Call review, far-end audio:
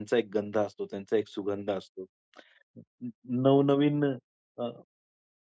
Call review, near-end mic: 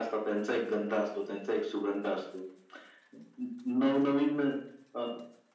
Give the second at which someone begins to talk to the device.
none

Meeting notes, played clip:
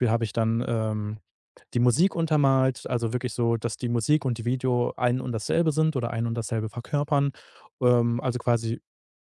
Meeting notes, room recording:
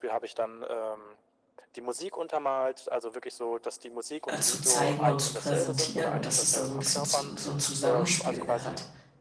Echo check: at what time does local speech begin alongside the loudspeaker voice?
4.2 s

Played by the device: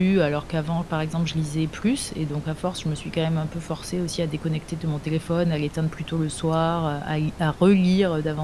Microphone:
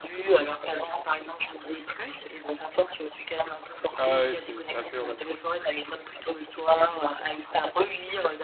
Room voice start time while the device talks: 4.0 s

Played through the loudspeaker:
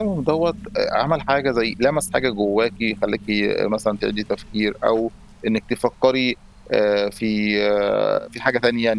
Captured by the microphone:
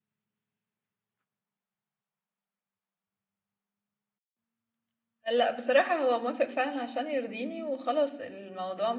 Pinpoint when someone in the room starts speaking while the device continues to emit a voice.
5.3 s

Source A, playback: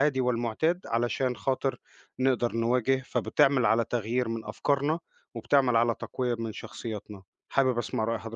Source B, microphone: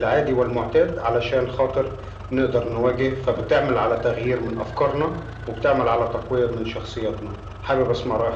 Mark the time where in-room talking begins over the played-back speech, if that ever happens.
none

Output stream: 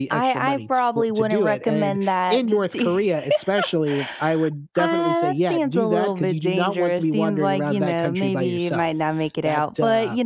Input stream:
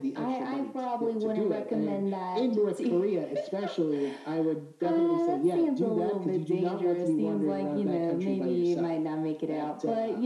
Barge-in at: none

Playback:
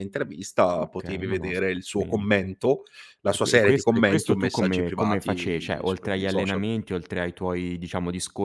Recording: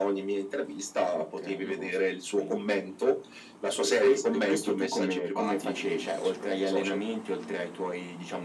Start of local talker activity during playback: none

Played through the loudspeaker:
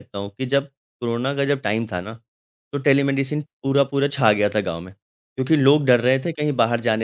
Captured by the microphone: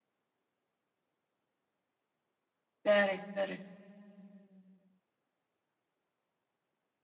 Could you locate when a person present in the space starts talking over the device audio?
2.9 s

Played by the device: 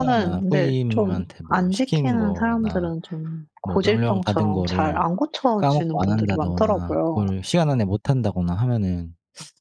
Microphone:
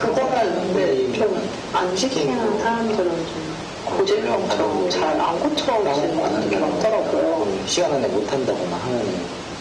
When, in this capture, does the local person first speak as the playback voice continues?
none

